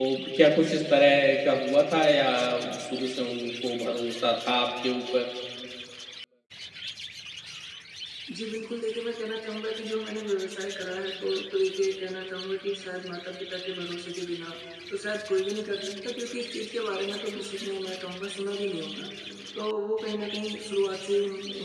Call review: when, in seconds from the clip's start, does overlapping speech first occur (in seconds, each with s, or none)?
none